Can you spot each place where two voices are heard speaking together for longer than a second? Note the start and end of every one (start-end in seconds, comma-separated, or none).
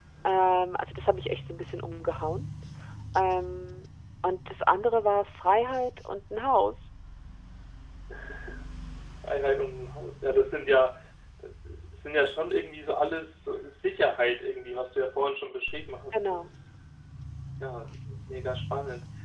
none